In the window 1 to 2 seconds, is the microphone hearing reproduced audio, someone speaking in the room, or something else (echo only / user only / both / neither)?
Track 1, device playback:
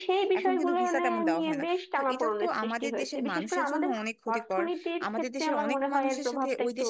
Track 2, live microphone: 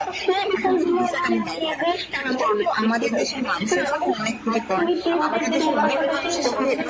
echo only